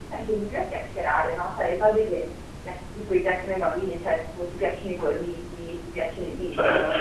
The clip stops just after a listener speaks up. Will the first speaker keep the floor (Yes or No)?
Yes